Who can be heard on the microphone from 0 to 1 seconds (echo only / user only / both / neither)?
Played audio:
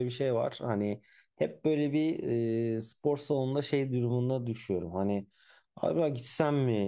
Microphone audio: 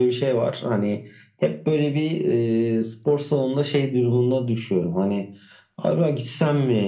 echo only